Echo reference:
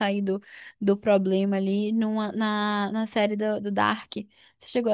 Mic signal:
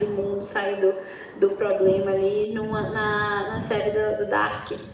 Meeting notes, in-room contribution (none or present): none